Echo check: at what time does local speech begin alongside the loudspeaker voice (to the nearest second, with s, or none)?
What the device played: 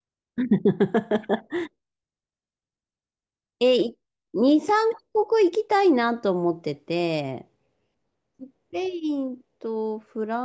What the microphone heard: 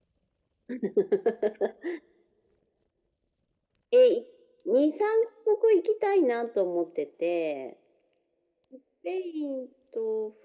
none